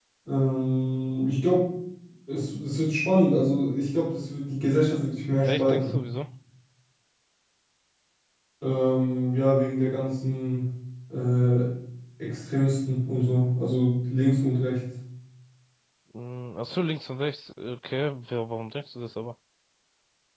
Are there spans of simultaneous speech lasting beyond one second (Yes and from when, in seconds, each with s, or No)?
No